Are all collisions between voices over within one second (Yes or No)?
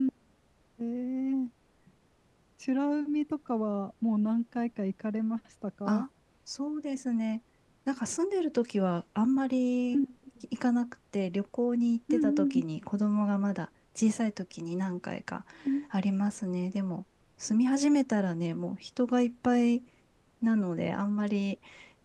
Yes